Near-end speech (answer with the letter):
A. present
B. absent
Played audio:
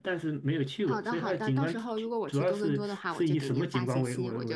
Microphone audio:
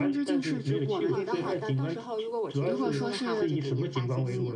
A